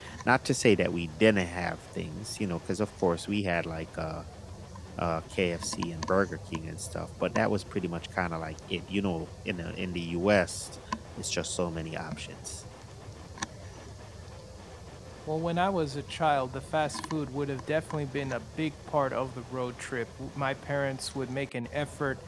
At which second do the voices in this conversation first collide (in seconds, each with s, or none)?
none